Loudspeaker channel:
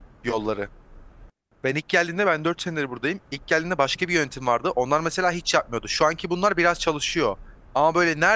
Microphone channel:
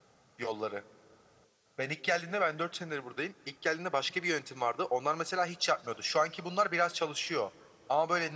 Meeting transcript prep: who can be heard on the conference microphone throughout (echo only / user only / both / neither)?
echo only